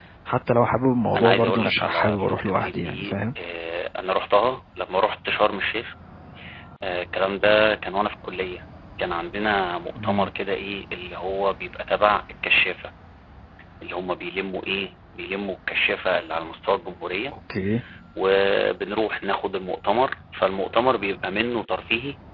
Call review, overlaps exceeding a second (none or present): present